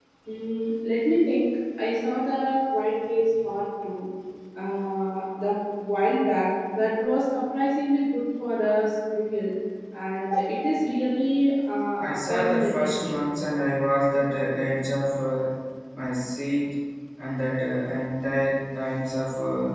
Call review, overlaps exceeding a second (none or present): present